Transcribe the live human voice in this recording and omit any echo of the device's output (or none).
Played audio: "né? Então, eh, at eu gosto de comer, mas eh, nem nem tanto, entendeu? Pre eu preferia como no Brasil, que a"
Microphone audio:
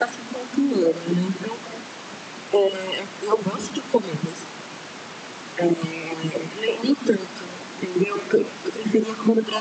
none